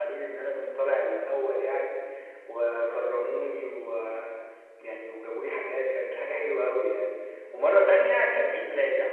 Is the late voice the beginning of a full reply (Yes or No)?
No